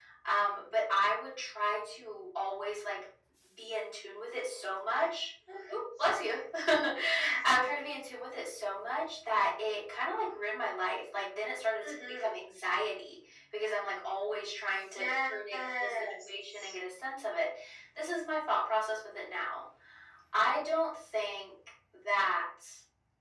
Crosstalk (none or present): present